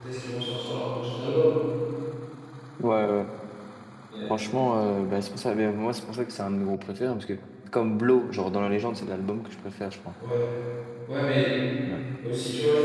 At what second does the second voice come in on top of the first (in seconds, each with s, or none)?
none